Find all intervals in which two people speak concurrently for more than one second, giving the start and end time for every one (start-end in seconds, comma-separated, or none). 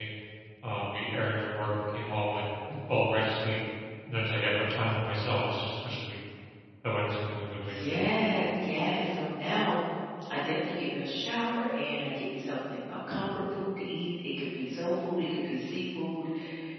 none